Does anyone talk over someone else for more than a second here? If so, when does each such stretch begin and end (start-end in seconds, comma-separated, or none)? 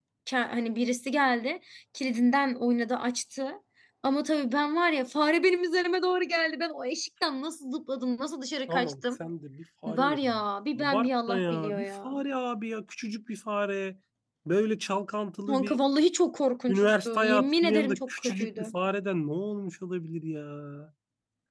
10.8-12.1, 16.7-18.7